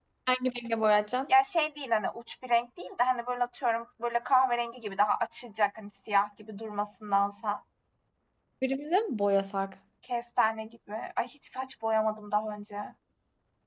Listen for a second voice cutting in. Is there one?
No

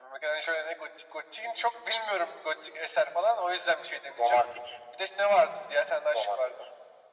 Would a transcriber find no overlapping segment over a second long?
Yes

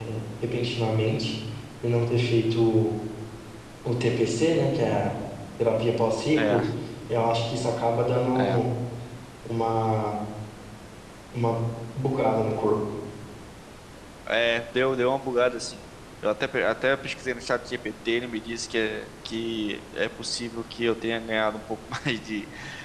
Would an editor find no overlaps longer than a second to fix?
Yes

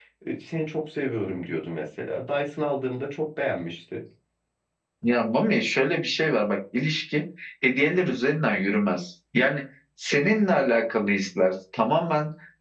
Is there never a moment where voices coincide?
Yes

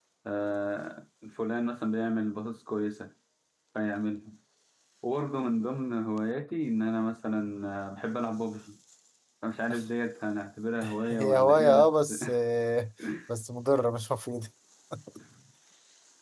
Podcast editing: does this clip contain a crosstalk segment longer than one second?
Yes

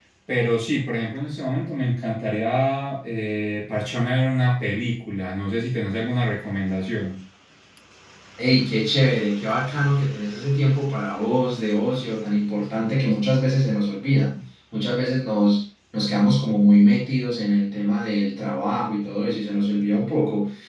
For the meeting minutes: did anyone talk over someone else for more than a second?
No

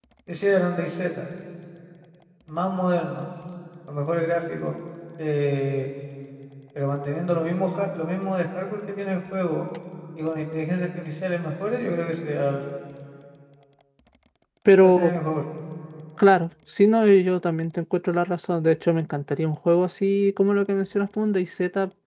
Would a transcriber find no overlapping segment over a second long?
Yes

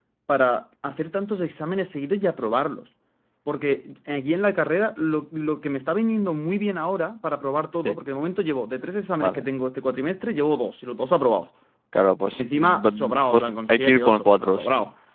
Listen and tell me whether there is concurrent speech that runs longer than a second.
Yes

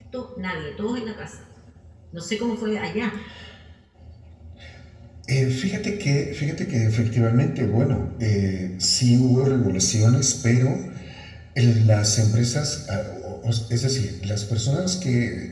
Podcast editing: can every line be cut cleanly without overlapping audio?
Yes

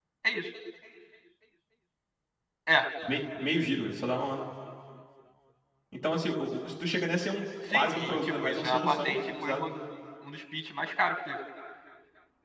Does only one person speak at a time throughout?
No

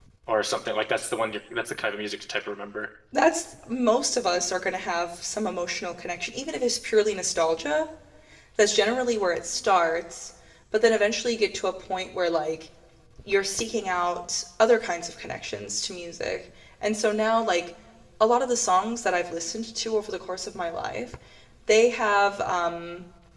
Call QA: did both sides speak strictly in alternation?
Yes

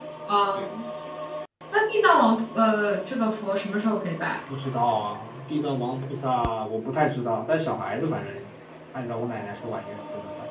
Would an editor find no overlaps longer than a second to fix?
Yes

